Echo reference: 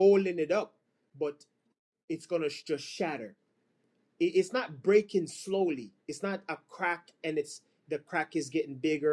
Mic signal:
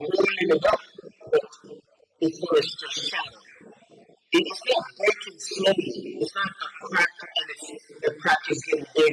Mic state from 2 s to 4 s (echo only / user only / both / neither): echo only